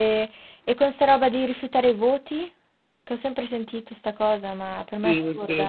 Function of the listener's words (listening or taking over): taking over